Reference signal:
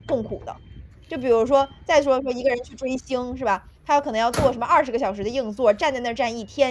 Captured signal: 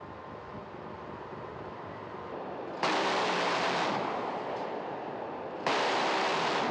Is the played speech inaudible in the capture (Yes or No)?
Yes